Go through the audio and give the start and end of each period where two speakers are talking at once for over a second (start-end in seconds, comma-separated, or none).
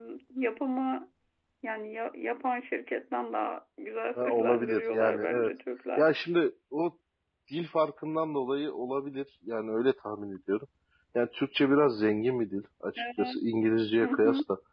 4.2-5.5